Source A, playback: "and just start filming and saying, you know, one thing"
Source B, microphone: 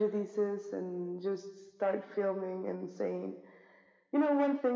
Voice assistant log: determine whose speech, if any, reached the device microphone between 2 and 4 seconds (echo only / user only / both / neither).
echo only